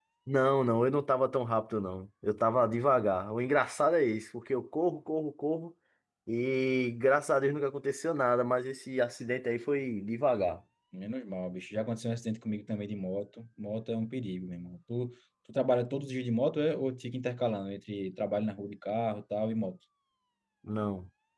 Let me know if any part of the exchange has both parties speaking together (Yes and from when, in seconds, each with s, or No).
No